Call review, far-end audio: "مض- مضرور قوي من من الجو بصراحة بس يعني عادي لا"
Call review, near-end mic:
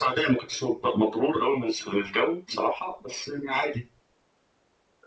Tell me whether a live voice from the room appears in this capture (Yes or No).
No